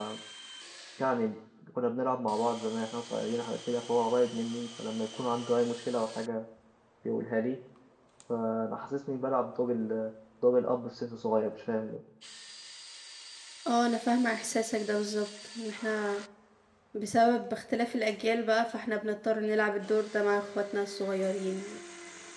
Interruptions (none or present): none